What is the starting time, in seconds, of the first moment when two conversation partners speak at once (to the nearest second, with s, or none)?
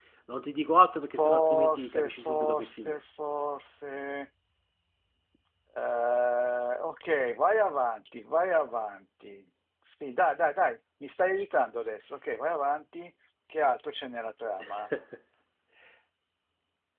1 s